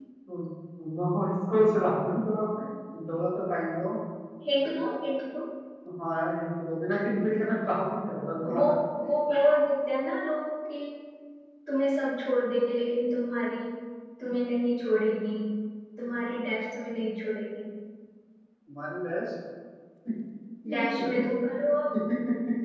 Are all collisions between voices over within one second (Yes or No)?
Yes